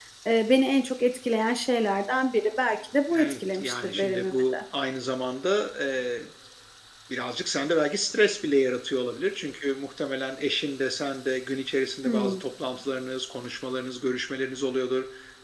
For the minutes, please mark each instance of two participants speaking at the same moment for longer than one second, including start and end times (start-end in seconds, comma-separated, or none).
3.1-4.6